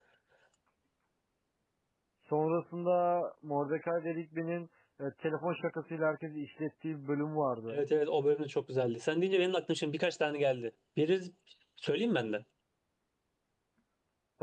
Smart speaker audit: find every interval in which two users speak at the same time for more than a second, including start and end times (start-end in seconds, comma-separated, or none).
none